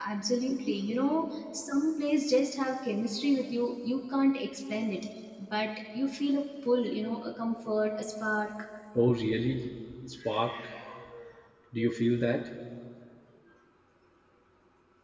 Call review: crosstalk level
none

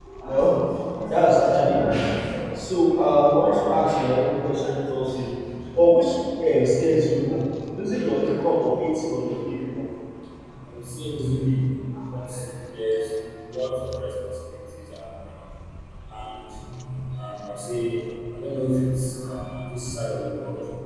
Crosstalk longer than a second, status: none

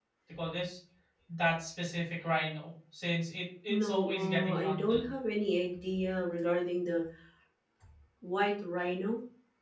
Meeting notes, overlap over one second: present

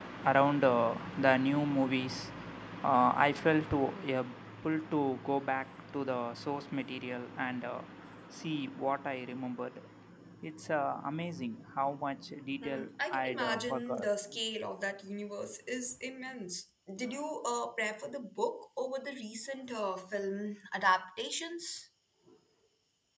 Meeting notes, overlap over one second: present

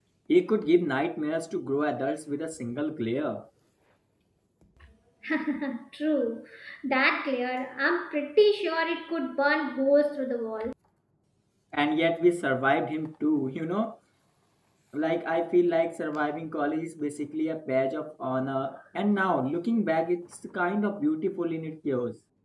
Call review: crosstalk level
none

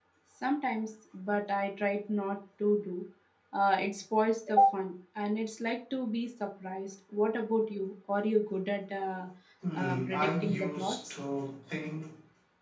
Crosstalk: present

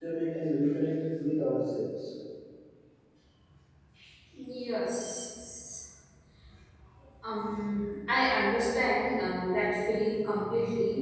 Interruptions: none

